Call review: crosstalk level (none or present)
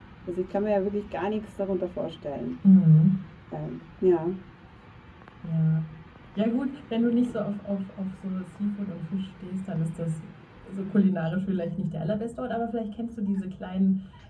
none